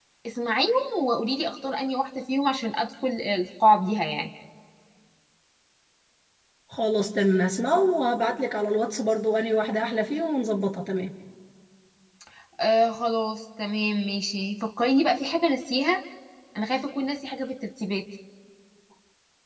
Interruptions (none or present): none